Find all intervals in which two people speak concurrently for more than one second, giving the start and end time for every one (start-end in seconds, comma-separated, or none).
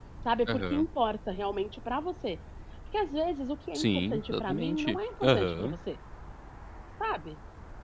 3.8-5.7